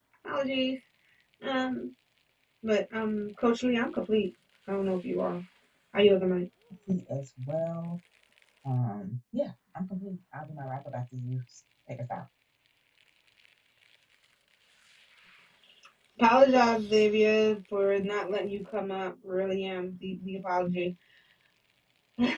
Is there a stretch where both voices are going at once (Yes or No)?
No